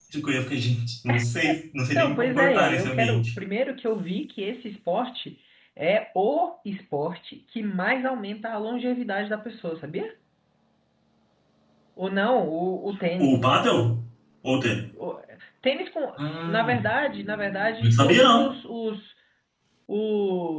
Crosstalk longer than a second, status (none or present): present